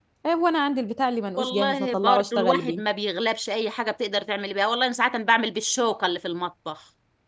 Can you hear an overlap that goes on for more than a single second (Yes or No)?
Yes